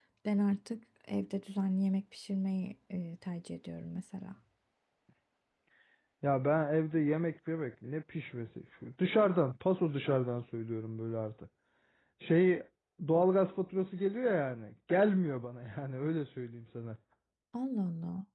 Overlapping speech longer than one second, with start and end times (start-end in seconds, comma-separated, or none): none